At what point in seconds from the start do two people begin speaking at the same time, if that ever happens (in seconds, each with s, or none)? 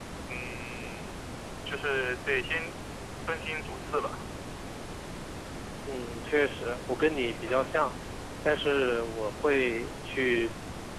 none